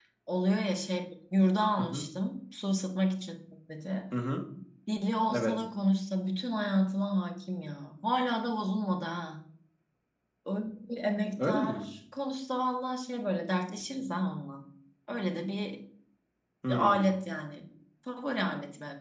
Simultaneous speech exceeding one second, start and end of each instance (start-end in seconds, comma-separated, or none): none